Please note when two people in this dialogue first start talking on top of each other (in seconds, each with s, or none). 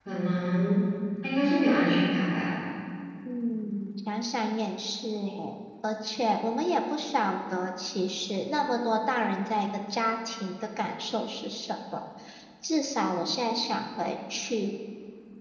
none